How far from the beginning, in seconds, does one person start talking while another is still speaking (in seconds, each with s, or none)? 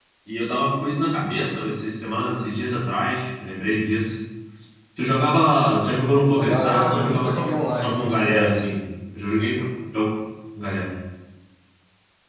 6.3 s